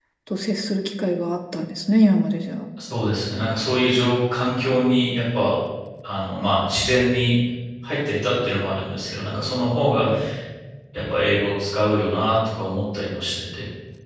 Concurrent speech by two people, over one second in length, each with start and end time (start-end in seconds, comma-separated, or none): none